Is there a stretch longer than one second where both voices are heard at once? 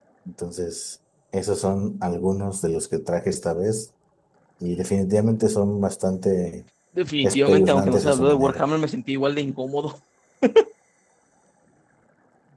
Yes, from 7.2 s

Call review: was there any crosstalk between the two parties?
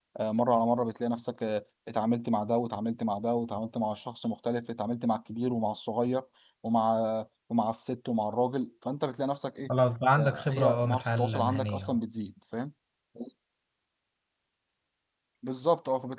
Yes, from 10.2 s

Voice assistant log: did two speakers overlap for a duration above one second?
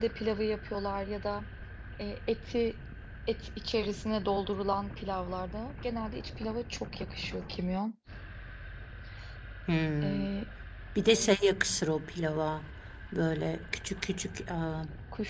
No

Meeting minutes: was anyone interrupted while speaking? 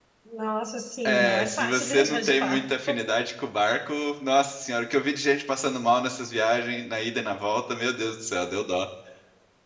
Yes, from 1.0 s

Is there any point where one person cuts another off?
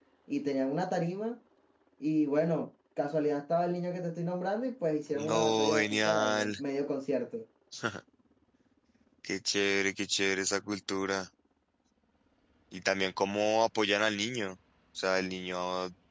Yes, from 5.2 s

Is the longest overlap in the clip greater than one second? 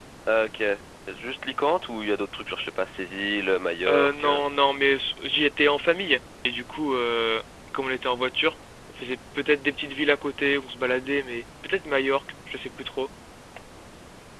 No

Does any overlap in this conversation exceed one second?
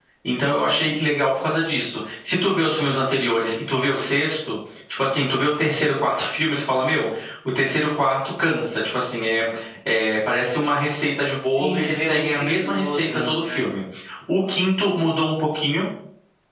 Yes, from 11.6 s

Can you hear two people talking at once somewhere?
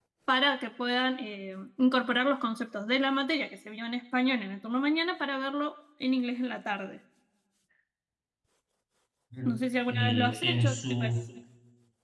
Yes, from 9.4 s

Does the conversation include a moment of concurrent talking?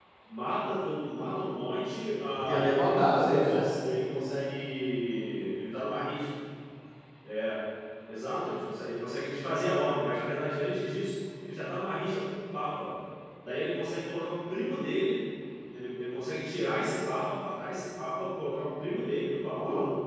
Yes, from 2.5 s

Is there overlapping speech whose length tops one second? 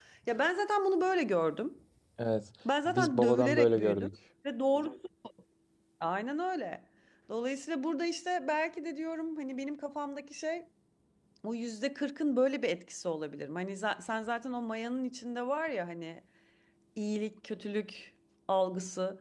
Yes, from 2.8 s

